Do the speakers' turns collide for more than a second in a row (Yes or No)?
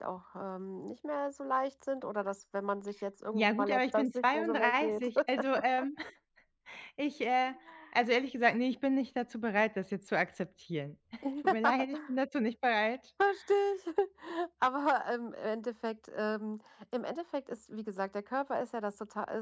Yes